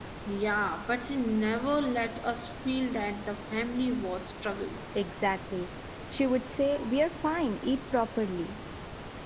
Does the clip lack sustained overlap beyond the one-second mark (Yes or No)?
Yes